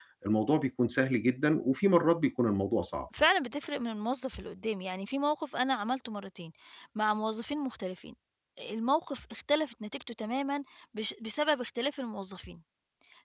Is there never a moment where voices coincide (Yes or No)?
Yes